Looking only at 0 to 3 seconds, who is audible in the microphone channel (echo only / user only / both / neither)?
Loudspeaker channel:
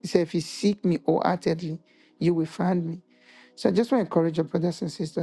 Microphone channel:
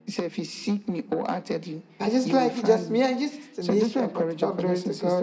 both